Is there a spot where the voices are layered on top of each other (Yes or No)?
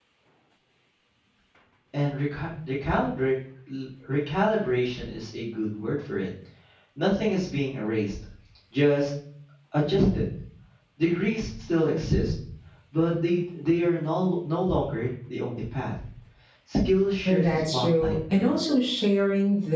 Yes